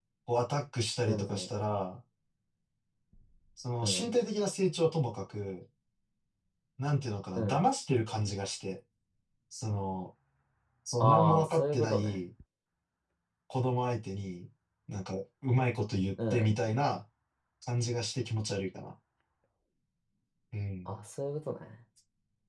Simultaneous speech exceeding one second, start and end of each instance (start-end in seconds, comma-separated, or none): 11.0-12.2